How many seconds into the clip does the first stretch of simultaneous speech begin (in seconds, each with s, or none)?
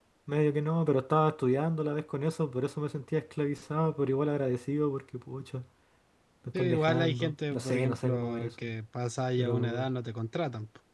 6.5 s